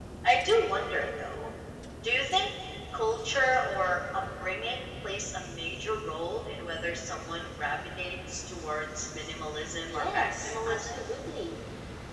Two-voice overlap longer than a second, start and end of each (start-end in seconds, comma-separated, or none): 9.7-11.1